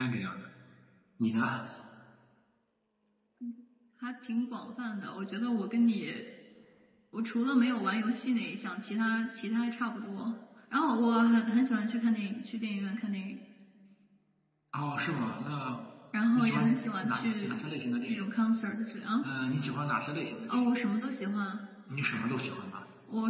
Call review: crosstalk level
present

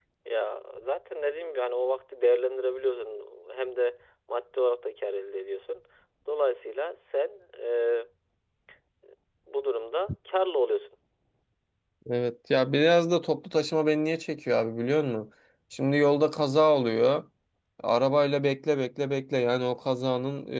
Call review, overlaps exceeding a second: none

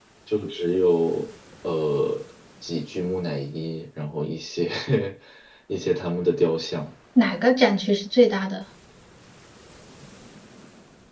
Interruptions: none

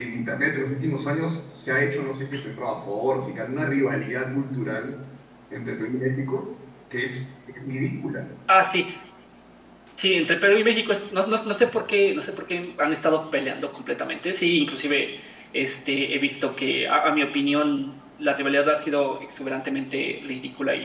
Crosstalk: none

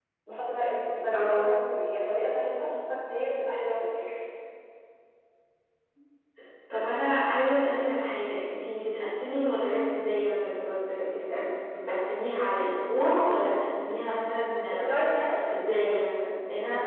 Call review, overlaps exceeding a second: none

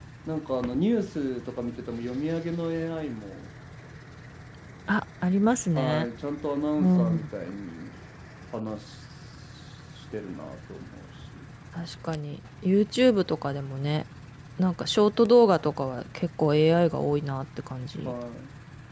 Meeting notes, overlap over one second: none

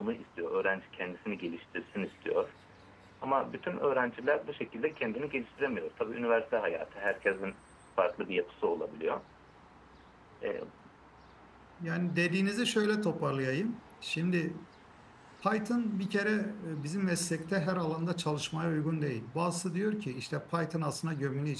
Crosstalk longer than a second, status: none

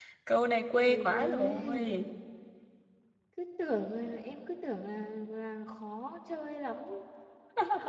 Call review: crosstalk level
present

